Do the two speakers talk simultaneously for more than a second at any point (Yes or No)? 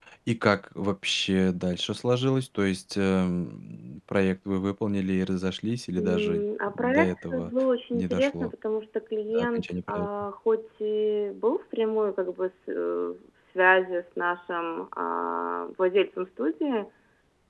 Yes